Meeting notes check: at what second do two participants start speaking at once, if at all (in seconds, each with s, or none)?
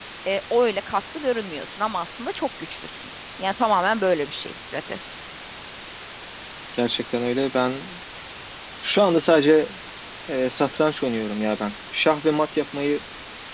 none